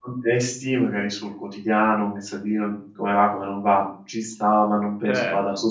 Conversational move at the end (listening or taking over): taking over